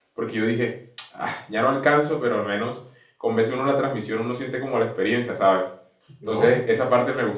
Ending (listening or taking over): listening